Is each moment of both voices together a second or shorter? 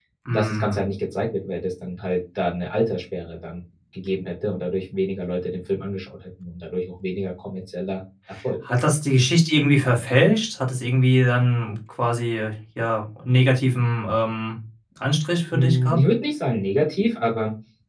Yes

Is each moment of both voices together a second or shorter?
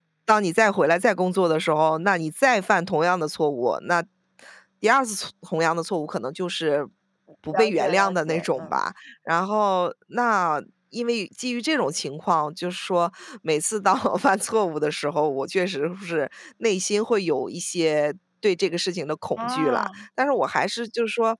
No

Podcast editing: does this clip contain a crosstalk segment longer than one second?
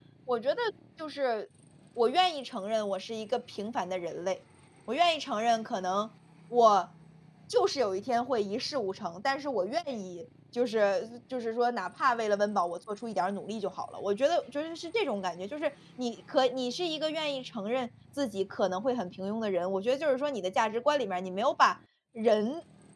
No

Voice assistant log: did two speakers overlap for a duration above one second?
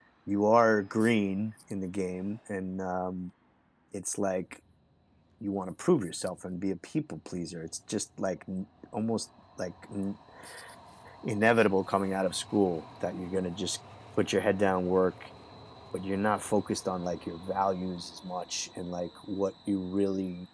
No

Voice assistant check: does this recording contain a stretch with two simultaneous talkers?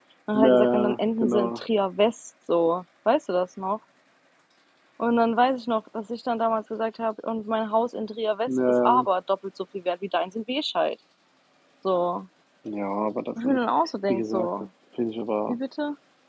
Yes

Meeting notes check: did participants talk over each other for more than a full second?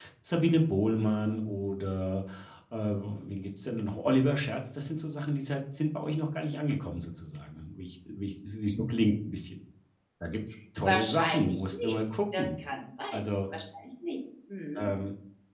Yes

